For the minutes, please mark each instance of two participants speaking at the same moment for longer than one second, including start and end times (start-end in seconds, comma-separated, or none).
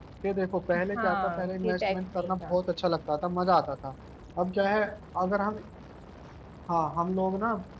0.8-2.5